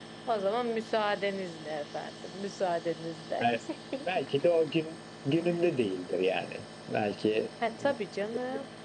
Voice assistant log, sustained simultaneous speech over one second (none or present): none